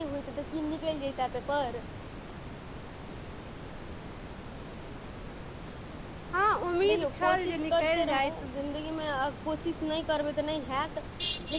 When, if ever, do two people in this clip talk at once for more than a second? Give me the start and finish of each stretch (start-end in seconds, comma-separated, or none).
6.9-8.3